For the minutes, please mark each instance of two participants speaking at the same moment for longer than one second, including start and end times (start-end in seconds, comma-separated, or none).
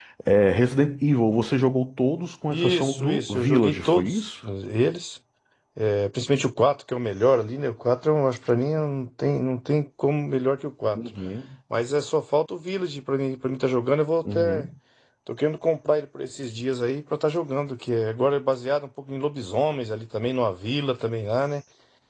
2.5-4.2